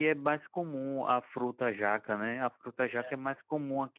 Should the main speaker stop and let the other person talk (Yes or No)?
No